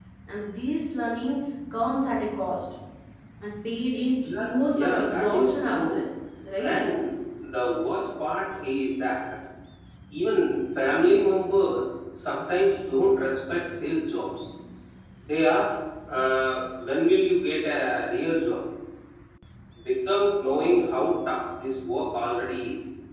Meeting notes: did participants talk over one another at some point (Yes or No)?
Yes